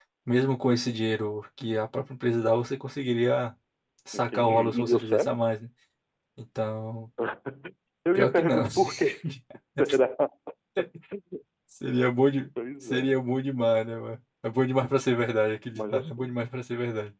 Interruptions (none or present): present